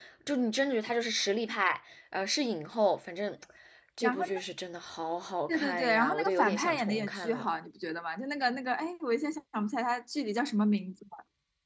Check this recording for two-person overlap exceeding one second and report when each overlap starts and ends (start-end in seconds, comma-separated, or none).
5.5-7.5